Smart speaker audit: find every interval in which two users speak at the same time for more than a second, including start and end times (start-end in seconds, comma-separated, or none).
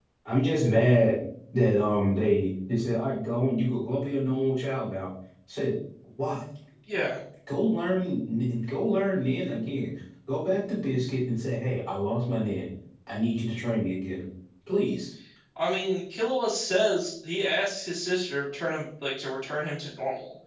none